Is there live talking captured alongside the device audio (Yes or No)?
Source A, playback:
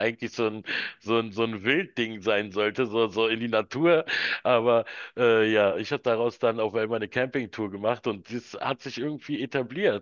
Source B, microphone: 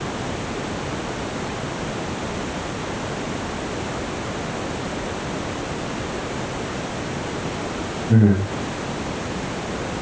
Yes